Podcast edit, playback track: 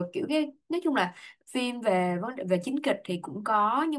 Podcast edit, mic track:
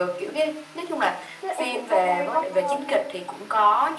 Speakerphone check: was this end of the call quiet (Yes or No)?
No